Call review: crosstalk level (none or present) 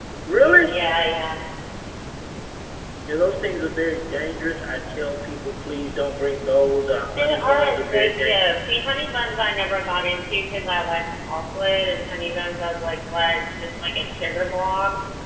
present